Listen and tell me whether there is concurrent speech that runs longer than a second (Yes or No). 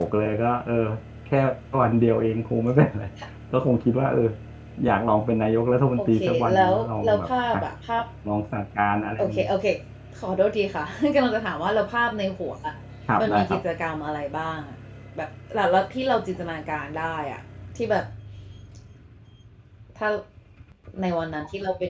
Yes